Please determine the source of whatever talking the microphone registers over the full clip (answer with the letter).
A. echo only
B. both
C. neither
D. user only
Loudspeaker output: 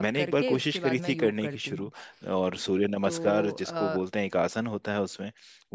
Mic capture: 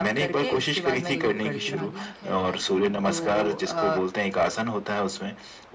B